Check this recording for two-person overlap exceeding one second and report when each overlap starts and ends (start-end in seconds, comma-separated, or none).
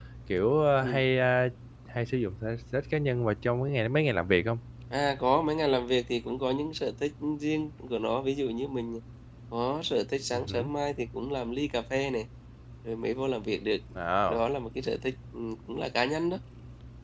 none